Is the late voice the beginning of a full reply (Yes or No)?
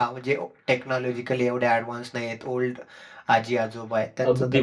Yes